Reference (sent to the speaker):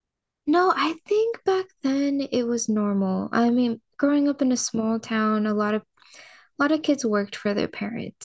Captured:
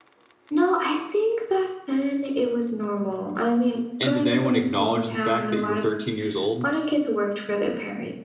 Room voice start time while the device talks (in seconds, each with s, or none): 4.0 s